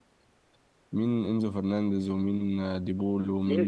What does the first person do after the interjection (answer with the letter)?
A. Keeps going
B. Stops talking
B